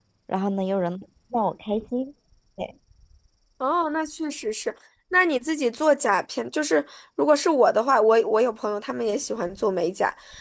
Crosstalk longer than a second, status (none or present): none